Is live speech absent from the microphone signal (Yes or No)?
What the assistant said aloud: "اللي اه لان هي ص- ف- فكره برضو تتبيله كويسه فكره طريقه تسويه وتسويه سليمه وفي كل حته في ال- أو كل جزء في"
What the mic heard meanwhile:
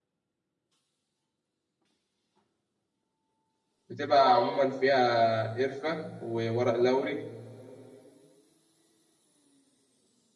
No